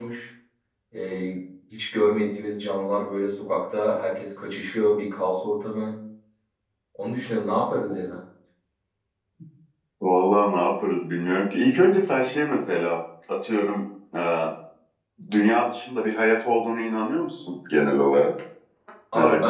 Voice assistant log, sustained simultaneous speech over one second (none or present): none